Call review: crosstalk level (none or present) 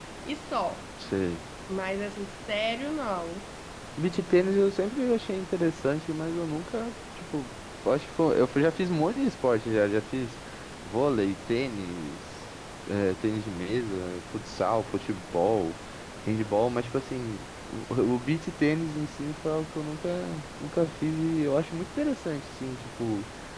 none